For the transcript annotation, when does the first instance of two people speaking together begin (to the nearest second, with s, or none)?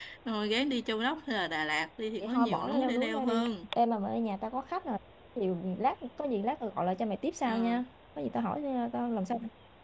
2 s